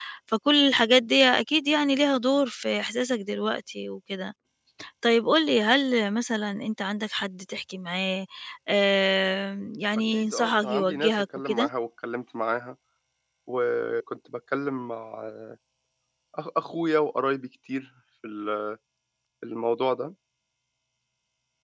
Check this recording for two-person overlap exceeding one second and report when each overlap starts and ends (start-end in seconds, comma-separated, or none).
10.1-11.7